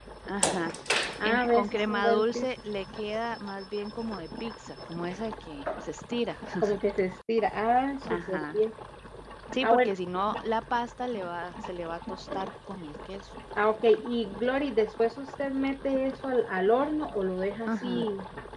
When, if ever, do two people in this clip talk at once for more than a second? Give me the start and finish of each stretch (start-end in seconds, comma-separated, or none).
1.2-2.5